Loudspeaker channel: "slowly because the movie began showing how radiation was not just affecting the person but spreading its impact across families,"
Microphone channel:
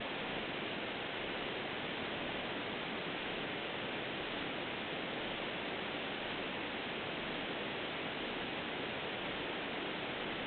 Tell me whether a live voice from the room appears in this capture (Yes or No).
No